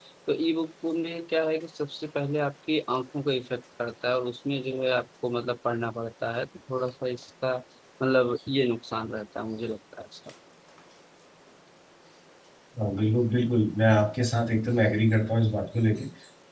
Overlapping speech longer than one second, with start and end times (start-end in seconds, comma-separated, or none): none